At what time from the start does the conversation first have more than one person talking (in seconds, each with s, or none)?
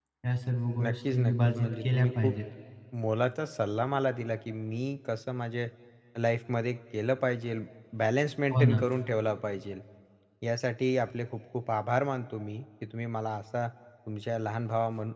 0.8 s